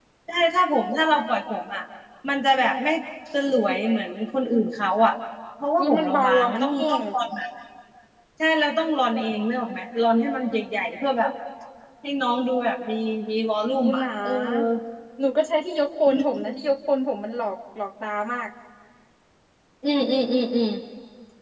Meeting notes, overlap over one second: present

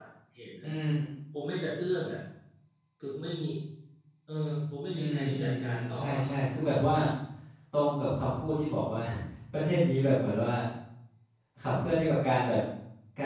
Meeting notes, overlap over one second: present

